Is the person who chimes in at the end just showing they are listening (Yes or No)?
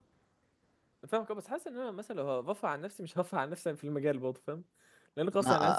No